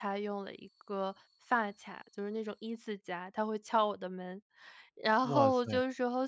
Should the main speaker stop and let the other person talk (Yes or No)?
No